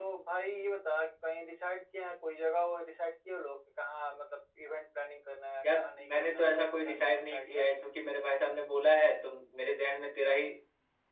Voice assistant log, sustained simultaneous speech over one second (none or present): present